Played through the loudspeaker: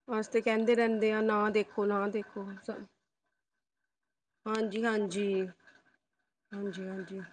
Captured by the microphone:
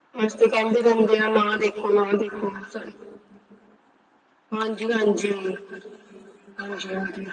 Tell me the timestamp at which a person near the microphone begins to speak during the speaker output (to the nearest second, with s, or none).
none